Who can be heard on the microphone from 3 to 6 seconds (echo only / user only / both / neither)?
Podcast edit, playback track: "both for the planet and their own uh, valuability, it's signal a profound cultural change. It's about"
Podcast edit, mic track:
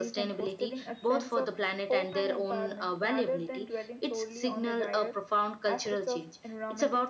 both